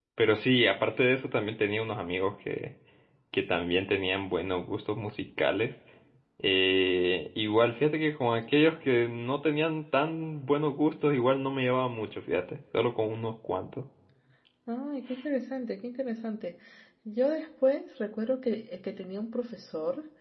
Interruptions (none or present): none